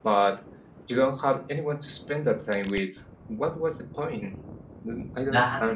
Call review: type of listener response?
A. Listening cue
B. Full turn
B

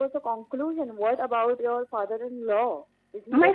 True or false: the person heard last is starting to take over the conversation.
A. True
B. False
A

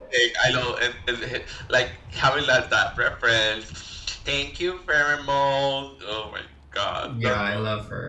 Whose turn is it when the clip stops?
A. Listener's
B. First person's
A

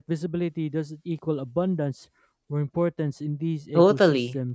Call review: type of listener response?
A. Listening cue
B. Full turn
B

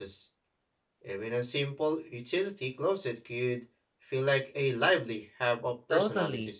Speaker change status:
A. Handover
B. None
A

